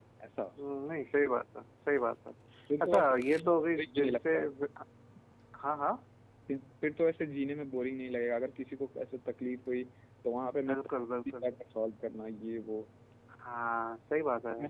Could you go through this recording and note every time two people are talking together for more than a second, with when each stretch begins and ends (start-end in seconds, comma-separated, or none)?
2.8-4.5